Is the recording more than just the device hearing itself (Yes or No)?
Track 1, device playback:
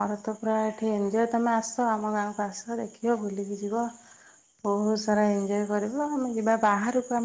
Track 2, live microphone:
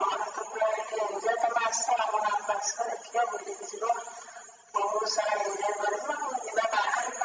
No